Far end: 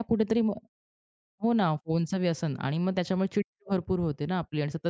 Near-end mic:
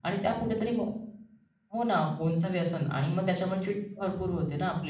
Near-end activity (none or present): none